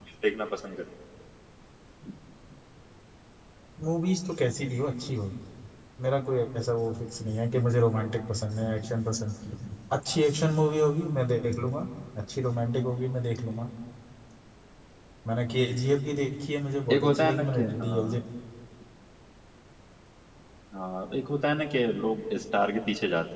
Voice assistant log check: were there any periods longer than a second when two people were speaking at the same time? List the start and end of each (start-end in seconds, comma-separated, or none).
16.9-18.2